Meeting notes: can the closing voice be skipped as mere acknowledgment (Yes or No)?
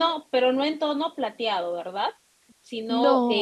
Yes